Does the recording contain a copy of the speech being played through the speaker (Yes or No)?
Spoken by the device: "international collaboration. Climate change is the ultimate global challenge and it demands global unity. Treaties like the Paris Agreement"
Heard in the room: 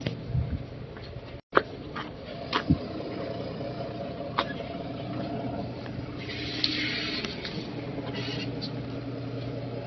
No